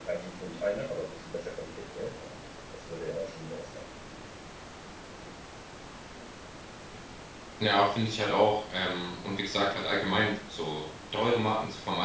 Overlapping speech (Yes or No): No